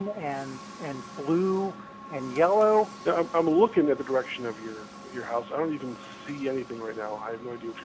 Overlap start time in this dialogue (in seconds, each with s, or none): none